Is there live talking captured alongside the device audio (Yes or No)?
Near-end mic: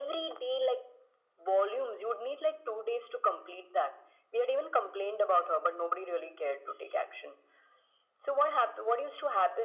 No